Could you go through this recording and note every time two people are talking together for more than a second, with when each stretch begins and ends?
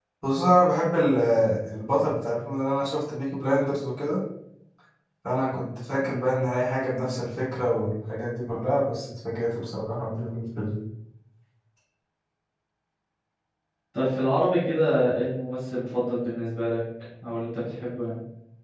none

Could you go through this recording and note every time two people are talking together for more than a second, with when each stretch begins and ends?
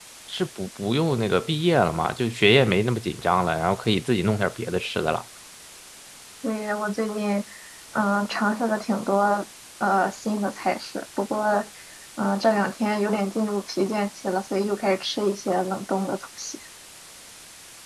none

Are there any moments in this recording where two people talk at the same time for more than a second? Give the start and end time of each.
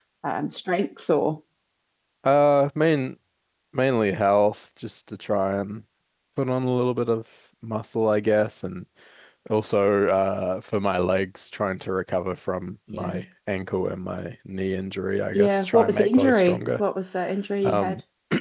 15.3-16.8

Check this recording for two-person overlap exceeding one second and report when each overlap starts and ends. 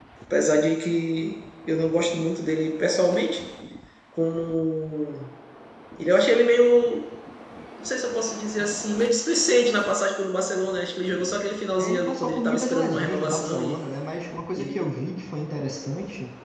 11.8-13.8

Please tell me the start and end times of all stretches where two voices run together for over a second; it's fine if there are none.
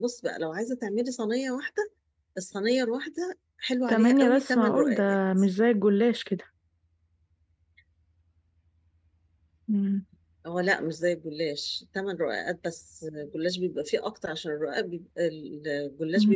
3.9-5.2

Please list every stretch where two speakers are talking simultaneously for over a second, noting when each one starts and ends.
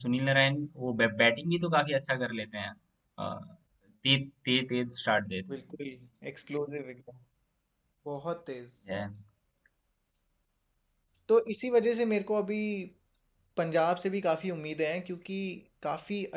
none

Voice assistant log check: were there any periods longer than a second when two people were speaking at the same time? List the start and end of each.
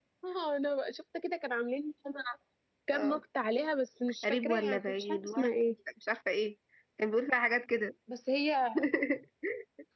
4.2-5.5

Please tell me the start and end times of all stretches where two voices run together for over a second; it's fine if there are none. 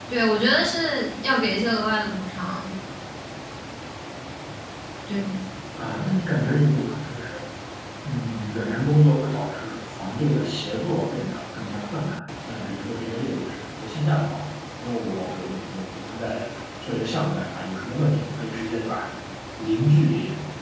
none

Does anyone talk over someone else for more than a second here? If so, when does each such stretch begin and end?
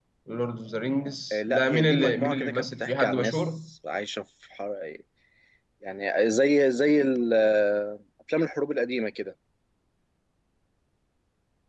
1.3-3.4

